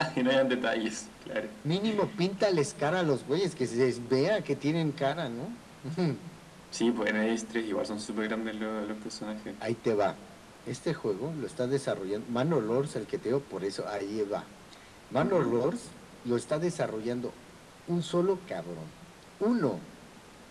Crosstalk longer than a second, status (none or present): none